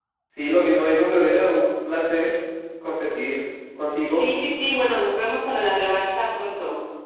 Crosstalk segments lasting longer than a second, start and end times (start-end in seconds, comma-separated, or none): none